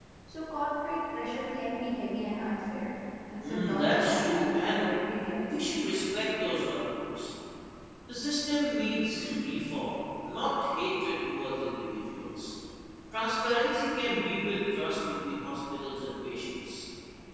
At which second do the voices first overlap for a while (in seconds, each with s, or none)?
3.4 s